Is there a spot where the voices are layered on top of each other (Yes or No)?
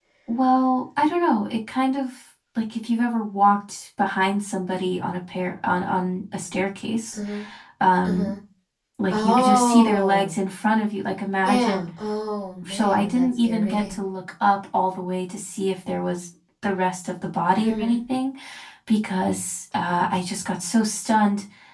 Yes